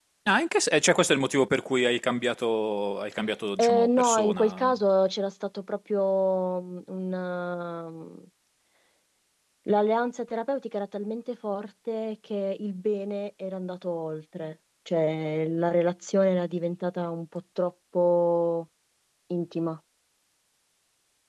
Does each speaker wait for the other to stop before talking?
No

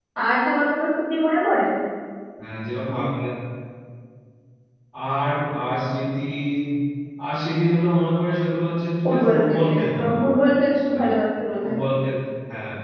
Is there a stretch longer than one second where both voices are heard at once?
Yes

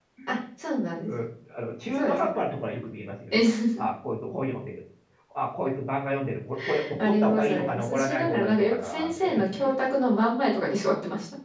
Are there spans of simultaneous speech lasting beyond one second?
Yes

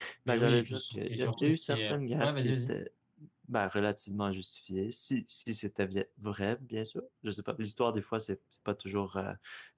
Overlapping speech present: Yes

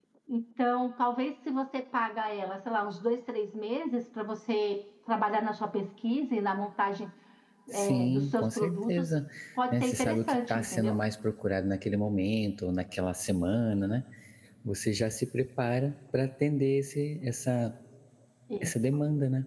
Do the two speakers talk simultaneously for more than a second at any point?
Yes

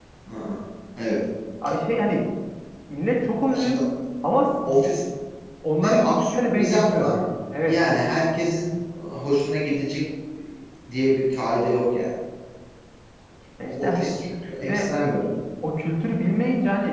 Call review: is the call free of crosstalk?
No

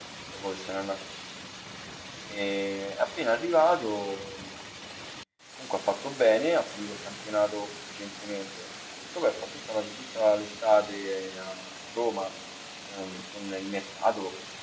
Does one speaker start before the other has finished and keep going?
No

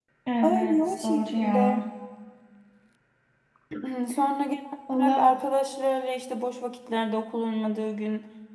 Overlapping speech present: Yes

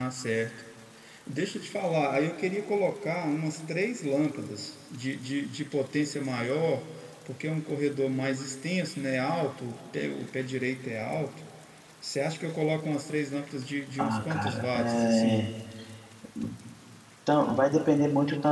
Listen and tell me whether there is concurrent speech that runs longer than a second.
Yes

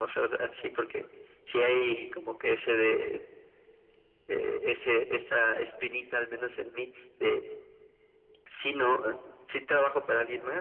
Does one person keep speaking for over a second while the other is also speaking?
No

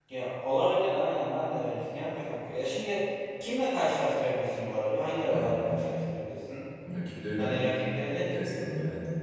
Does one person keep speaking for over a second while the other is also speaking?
No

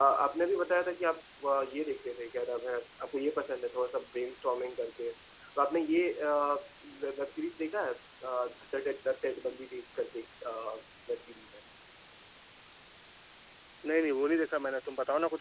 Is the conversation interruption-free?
Yes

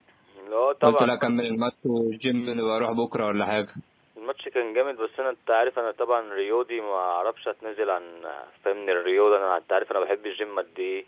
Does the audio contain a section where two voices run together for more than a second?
No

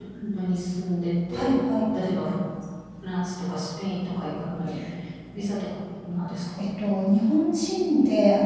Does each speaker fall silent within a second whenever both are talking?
Yes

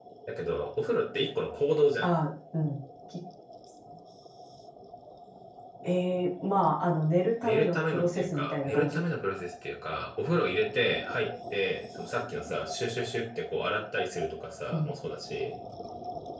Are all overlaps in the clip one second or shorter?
No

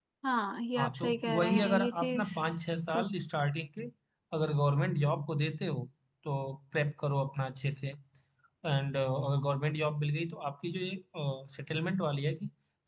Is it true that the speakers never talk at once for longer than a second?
No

